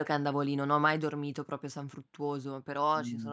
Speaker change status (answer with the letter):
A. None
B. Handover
A